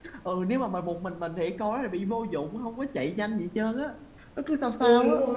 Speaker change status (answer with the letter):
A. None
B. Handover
B